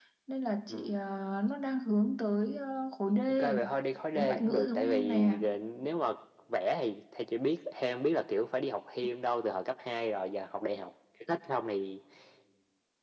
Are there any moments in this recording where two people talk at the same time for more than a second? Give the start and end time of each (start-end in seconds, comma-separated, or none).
4.2-5.4